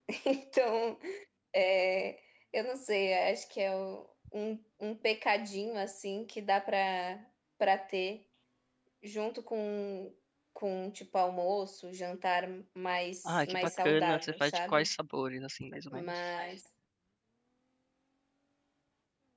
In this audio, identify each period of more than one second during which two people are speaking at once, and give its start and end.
13.2-14.9

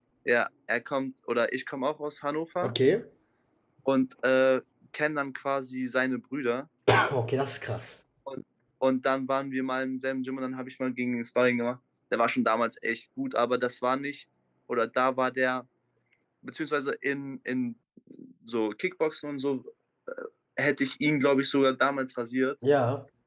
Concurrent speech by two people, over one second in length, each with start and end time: none

